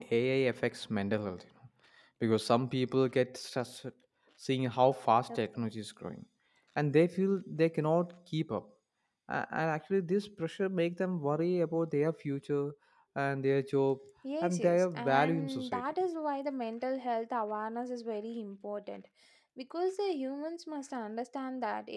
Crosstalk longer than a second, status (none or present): present